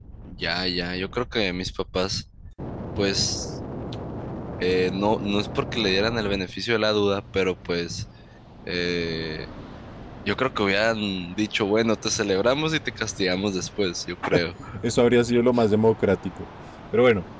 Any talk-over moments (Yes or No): No